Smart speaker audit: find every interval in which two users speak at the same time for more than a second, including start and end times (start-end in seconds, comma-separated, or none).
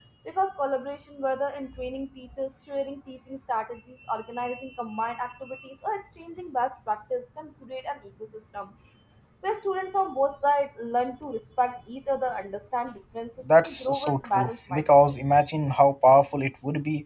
13.6-15.4